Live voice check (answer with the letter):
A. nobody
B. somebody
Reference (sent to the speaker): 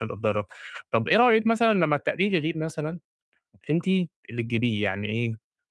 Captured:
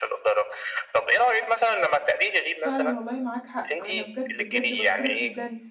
B